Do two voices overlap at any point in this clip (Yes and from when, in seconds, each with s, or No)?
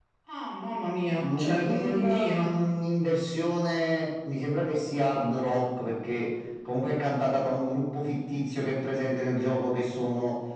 Yes, from 1.2 s